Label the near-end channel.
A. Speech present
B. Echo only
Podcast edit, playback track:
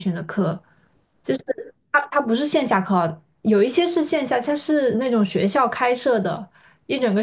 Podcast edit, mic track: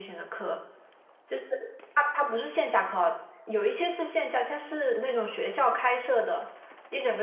B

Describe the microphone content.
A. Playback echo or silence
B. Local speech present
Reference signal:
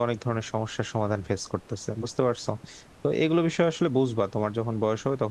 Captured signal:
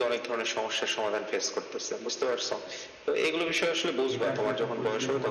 B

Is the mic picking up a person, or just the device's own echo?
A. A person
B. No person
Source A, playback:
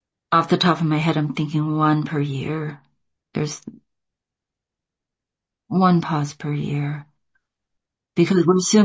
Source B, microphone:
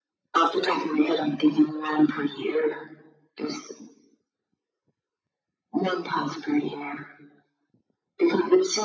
B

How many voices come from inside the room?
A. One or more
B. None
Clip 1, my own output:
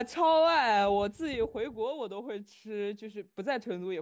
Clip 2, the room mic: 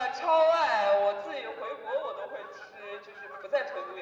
B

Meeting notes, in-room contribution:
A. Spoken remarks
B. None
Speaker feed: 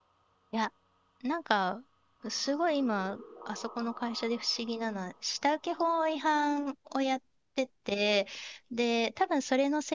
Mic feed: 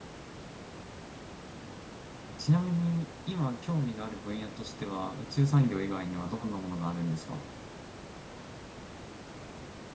A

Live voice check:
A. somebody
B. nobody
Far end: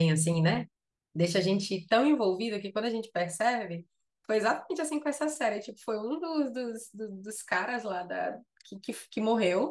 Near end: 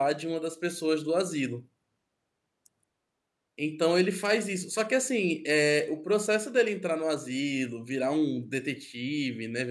A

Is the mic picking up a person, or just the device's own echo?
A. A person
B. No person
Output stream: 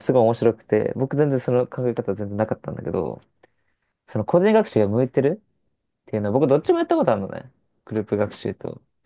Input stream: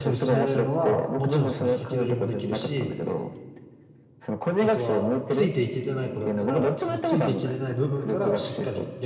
A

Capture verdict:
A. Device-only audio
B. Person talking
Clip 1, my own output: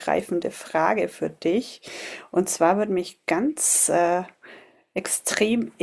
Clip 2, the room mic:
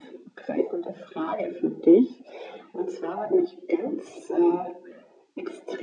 A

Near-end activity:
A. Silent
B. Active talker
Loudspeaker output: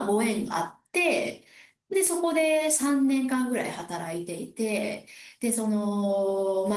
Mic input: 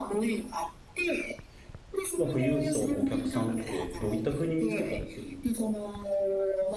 B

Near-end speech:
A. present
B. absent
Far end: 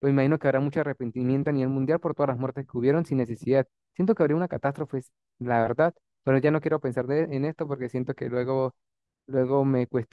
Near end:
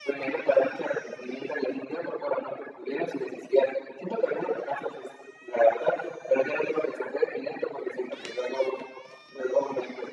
B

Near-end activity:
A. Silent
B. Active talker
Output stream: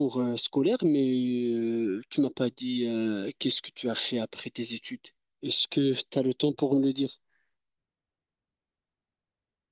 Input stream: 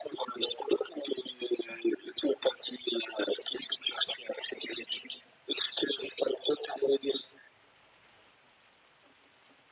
A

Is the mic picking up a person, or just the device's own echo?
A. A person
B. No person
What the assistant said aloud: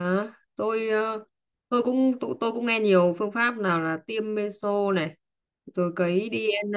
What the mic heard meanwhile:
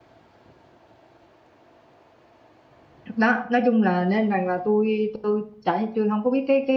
A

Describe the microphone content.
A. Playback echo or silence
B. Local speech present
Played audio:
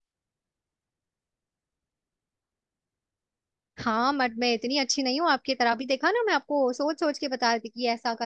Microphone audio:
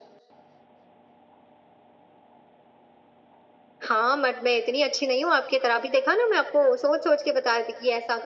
A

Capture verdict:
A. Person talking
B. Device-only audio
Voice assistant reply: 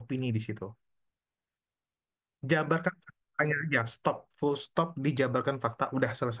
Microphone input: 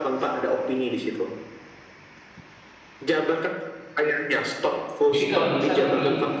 A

